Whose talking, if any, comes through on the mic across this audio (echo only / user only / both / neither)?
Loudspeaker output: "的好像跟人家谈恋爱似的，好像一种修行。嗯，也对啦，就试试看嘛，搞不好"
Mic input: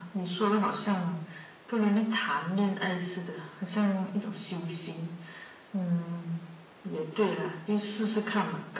echo only